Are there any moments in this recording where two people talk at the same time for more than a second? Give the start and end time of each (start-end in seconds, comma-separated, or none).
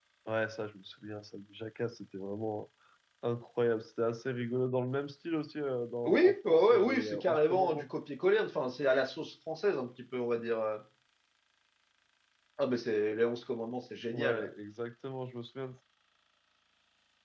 6.0-7.9